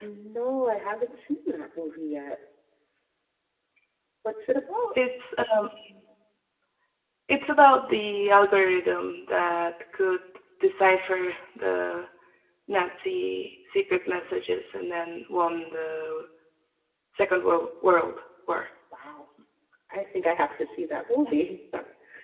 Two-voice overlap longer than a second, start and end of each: none

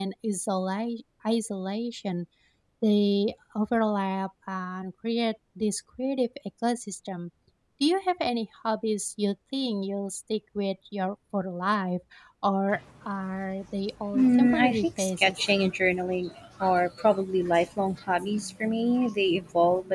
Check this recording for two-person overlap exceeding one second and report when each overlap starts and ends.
14.1-15.5

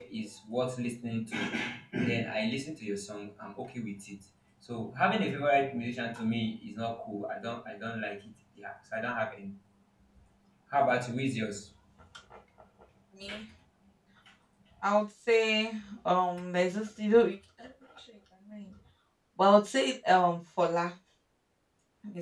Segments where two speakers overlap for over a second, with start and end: none

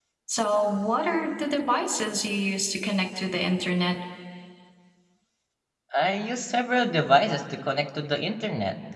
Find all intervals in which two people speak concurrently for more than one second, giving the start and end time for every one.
none

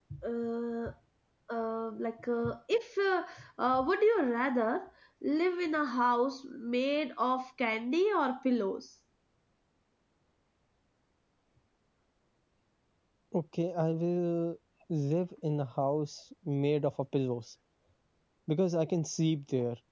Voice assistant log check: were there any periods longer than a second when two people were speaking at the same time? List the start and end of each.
none

